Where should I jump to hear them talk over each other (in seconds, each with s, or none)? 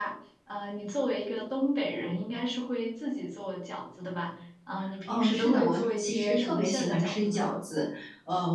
5.1 s